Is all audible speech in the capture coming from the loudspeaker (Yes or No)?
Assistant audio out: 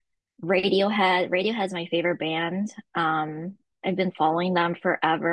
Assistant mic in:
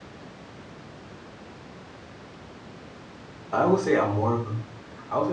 No